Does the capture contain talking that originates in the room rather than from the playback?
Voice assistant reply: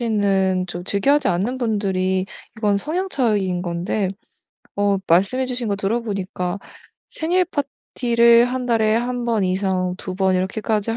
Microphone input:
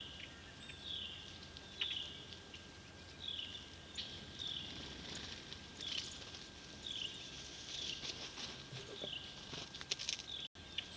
No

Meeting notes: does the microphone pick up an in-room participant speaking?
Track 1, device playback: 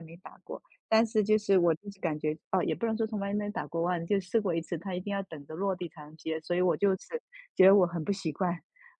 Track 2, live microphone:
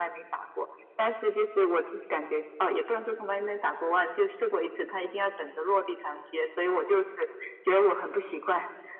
No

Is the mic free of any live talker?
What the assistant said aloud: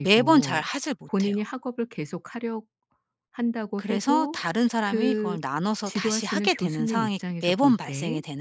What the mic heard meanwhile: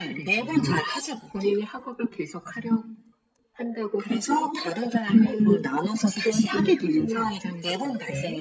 Yes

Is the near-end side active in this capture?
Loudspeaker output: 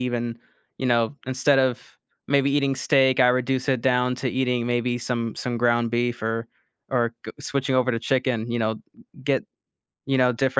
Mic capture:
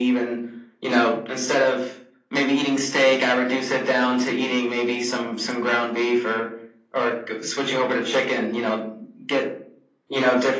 No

